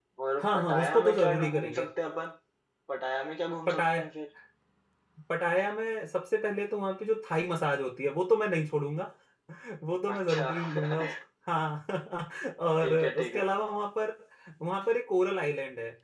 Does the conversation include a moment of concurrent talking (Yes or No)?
Yes